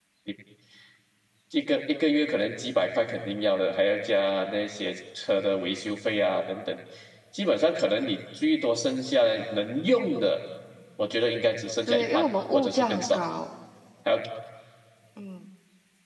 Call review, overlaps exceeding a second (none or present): present